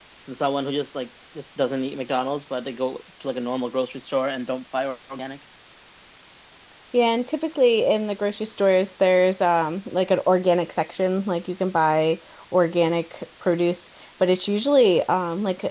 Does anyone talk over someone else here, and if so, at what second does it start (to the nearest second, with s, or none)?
none